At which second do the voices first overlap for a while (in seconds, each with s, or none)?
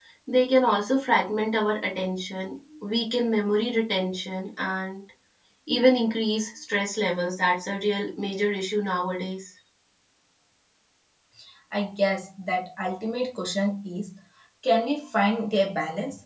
none